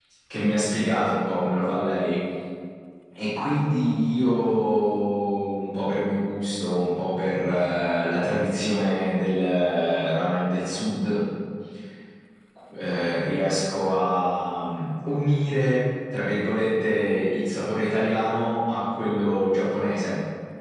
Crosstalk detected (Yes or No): No